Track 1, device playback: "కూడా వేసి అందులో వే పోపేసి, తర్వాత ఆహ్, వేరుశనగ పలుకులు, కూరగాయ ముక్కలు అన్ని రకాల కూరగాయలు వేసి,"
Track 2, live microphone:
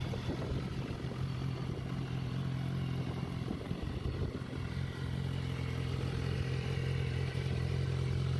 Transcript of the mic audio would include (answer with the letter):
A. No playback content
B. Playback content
A